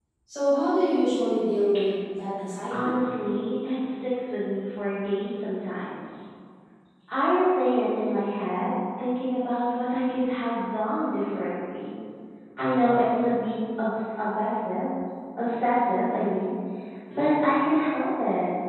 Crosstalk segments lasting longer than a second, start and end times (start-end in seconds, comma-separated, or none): none